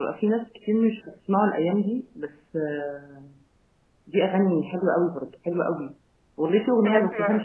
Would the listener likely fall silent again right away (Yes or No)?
Yes